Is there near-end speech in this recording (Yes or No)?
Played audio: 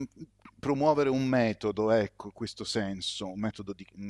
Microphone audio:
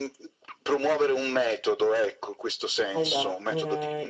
Yes